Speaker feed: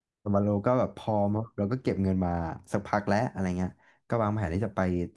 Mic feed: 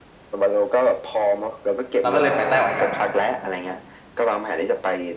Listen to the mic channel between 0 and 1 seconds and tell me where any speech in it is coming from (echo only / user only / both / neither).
echo only